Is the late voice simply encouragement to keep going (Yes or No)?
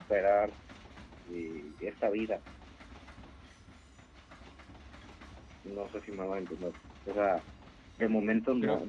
Yes